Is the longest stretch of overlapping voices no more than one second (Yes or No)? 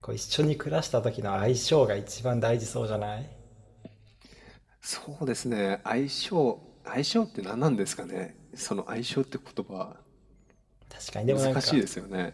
Yes